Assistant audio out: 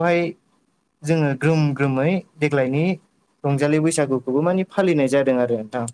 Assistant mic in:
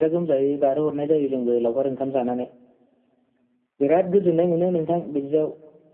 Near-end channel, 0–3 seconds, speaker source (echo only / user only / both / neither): user only